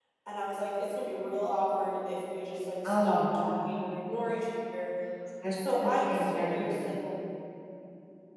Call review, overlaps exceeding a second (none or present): present